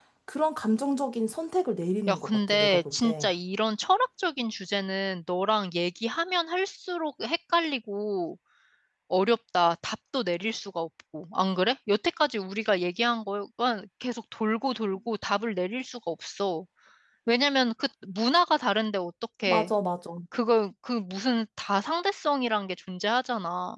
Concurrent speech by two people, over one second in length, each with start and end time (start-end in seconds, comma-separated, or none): 2.1-3.3